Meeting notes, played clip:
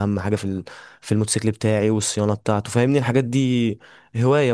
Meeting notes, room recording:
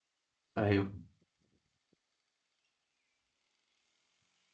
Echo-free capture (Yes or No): Yes